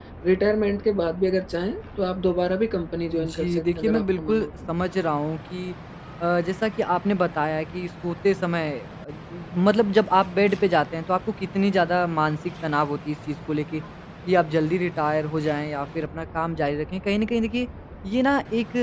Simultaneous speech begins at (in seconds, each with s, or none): 3.1 s